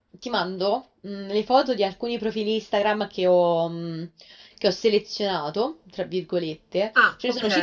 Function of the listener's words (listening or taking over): listening